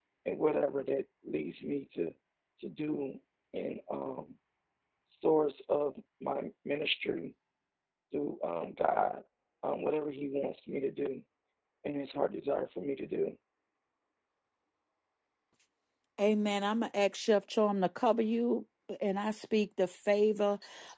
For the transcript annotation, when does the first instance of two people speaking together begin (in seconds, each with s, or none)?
none